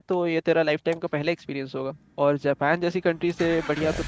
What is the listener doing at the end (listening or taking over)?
listening